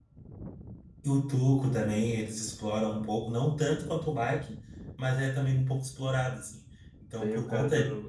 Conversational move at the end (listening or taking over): taking over